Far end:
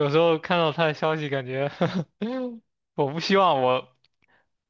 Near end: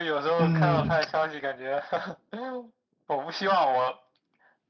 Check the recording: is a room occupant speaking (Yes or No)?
Yes